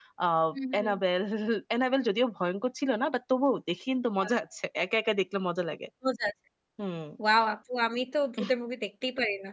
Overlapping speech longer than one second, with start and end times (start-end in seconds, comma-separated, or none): none